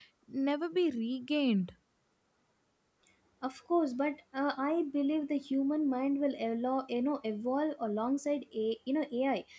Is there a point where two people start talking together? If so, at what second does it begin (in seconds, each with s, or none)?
none